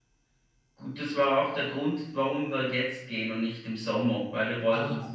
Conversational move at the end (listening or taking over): listening